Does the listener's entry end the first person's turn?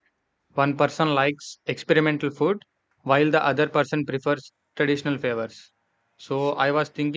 No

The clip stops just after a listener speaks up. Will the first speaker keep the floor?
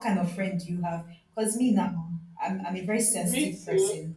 Yes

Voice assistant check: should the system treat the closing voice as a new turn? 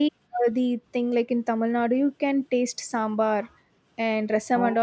No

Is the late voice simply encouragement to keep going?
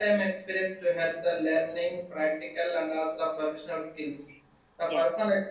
Yes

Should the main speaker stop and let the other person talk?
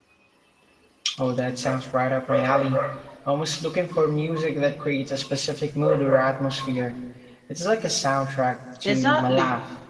Yes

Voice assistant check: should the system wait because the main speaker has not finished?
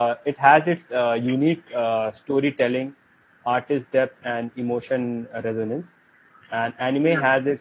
Yes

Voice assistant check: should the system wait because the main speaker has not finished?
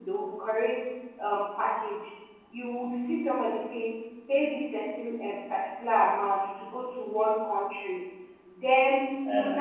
Yes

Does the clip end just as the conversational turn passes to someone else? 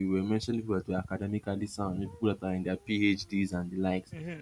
Yes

